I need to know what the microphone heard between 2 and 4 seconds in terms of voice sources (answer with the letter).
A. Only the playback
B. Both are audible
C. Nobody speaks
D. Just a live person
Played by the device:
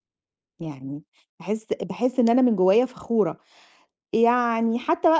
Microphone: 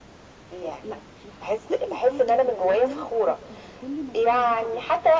B